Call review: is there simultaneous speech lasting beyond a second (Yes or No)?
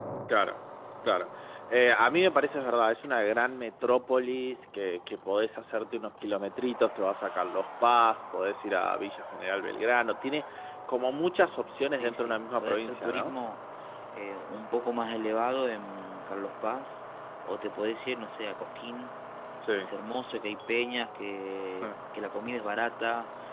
Yes